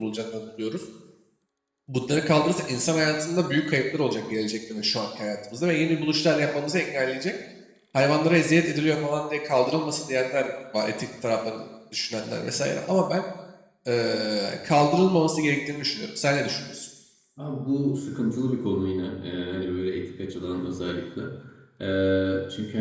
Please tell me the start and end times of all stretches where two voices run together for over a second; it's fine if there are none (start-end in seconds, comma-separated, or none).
none